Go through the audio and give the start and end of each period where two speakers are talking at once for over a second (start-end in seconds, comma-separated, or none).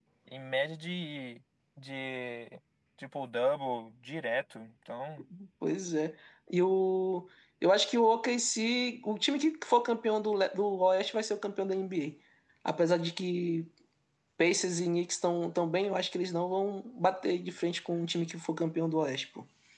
none